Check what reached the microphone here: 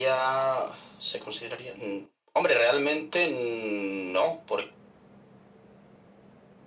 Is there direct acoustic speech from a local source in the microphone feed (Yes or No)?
No